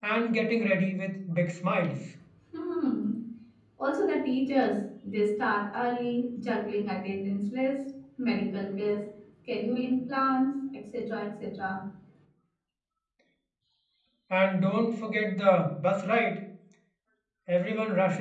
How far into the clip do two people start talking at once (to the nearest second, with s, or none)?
none